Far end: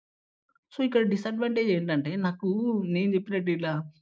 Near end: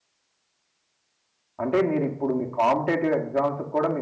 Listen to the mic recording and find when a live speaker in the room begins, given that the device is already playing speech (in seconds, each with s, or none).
1.6 s